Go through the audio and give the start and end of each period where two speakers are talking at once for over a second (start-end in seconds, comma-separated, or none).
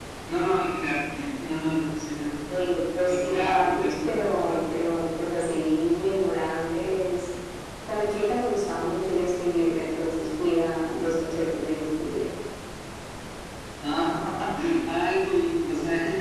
3.1-4.6